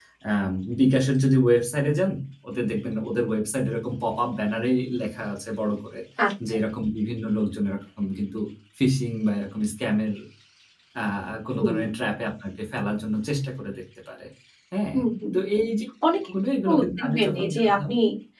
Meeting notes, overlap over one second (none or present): present